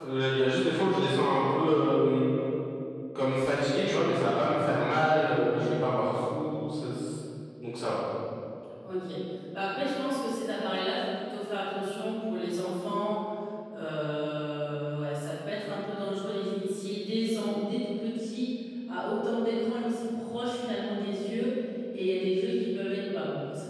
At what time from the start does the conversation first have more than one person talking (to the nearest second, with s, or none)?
none